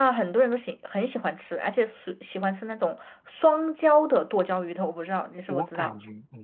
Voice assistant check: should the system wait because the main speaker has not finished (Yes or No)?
No